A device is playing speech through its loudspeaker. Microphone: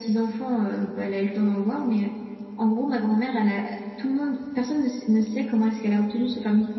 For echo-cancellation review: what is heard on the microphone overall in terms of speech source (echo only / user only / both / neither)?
echo only